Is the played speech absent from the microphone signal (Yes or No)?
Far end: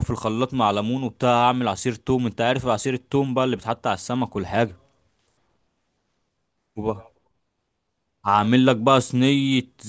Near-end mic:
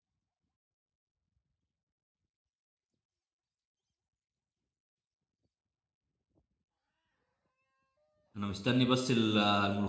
Yes